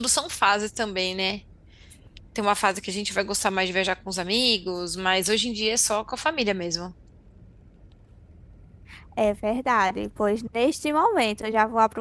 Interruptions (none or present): none